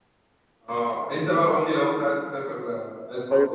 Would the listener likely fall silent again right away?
No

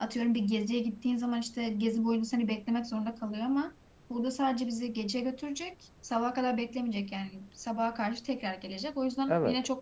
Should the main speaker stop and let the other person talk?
No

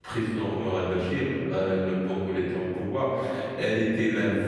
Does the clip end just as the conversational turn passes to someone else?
No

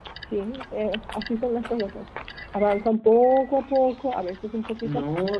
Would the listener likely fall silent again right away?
No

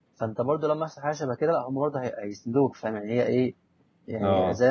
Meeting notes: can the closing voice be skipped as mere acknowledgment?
No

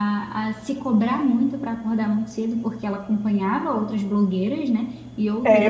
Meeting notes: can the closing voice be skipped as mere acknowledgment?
No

